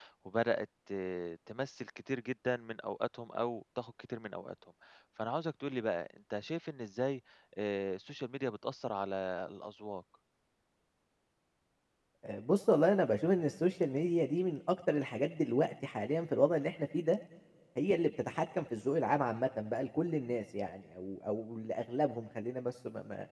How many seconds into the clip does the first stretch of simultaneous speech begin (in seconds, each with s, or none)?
none